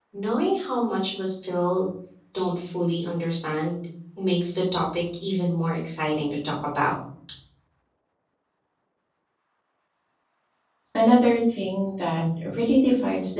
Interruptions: none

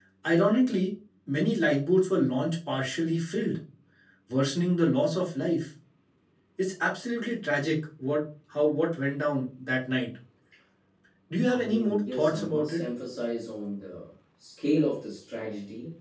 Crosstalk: present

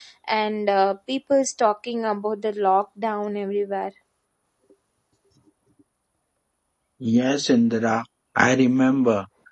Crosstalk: none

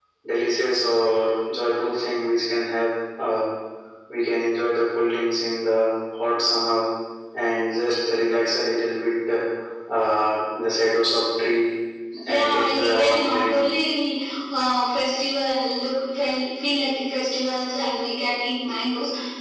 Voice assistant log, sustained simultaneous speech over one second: present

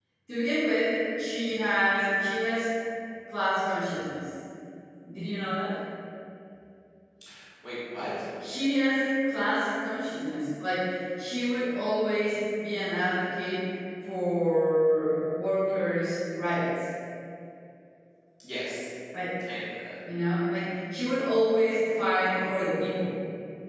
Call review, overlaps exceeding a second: none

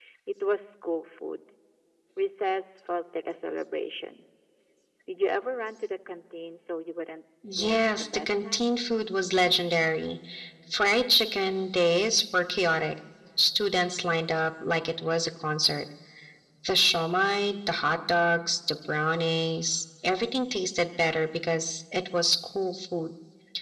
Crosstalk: present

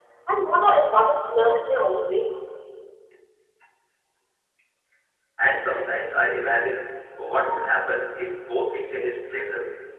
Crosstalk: none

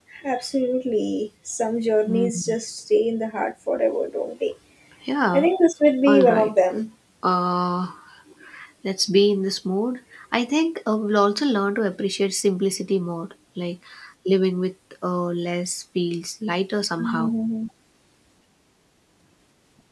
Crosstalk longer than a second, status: none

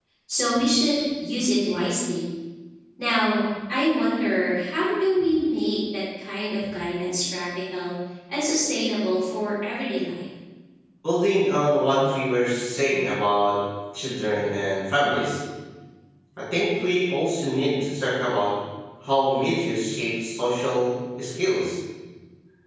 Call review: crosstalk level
none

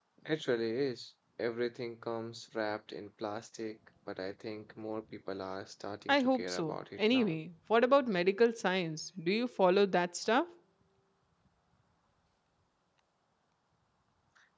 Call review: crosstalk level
present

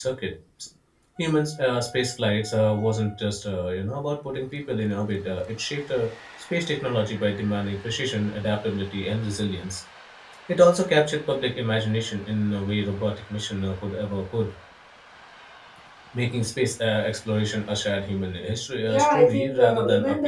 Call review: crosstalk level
present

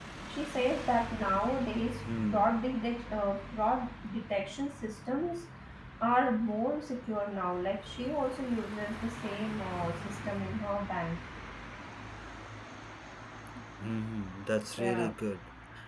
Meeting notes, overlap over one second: none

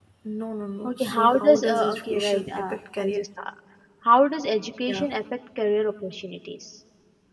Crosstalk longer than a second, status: present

